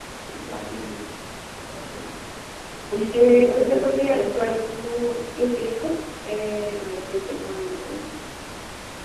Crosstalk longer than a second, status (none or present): present